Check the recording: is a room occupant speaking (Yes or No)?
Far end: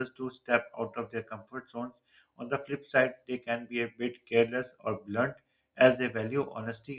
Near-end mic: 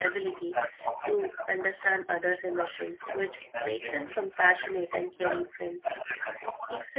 Yes